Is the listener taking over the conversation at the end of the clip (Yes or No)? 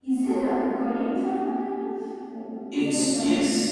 Yes